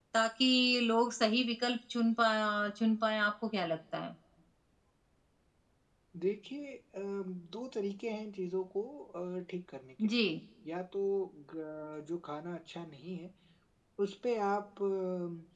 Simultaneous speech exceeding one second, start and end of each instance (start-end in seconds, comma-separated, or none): none